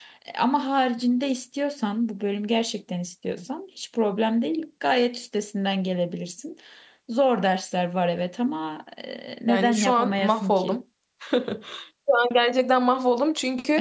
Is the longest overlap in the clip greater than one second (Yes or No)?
Yes